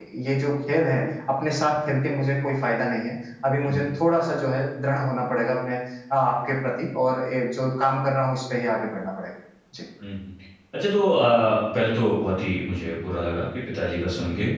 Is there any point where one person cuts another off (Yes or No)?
No